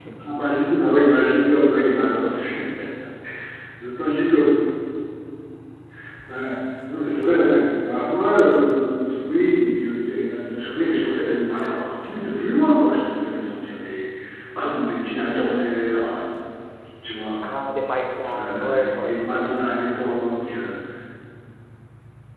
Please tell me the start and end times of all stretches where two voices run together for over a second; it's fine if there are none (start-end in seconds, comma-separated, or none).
18.3-19.5